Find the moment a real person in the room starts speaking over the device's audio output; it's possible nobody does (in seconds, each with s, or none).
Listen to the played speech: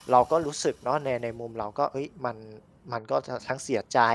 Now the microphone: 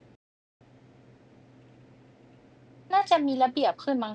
2.9 s